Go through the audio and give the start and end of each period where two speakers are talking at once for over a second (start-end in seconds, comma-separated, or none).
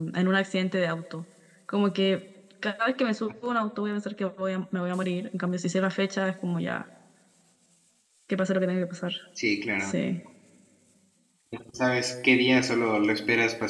none